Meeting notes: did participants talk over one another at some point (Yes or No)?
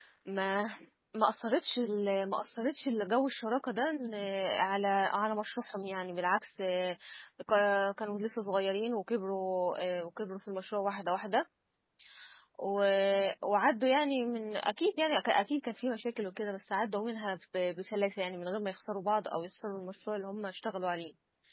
No